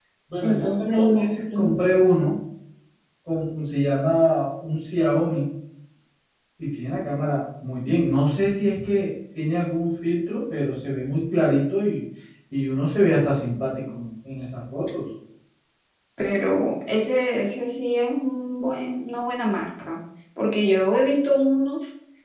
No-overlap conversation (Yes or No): No